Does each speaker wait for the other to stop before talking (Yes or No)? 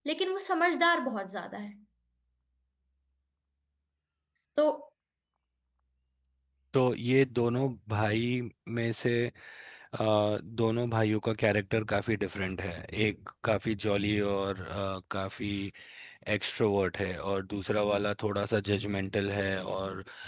Yes